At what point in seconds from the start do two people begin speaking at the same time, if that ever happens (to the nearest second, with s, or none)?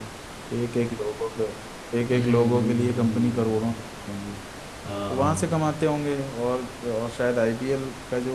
2 s